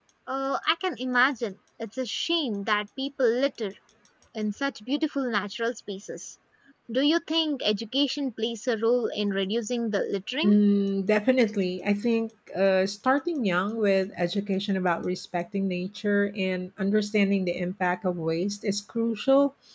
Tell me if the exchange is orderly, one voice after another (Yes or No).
Yes